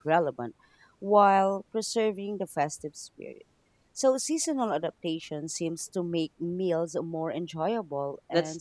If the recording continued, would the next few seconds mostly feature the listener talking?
Yes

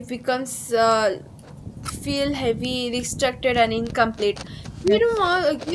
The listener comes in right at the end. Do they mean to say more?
No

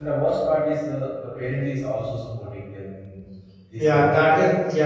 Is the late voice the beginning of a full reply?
Yes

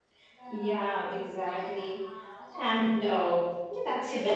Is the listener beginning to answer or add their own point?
Yes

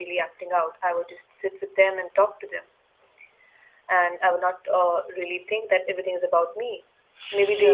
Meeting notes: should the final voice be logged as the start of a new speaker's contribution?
No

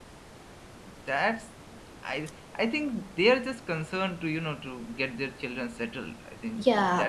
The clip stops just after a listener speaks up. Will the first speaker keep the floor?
No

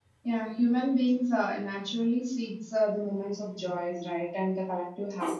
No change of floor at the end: Yes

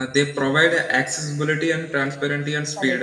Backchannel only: No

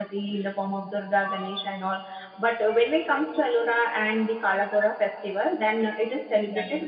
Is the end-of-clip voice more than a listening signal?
No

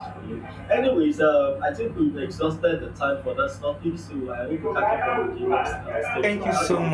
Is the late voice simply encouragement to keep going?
No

